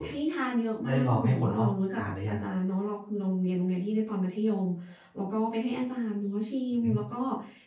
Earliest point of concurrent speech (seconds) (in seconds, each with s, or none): 0.9 s